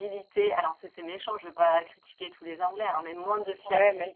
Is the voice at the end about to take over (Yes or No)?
No